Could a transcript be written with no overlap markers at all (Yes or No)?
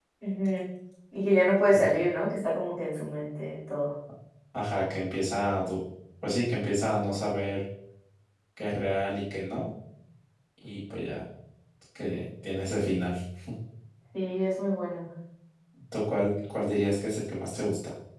Yes